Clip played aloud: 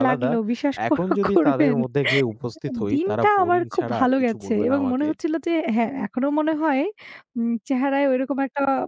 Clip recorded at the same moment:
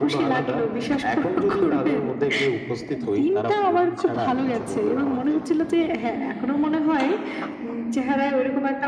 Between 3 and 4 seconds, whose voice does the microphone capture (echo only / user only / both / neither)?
echo only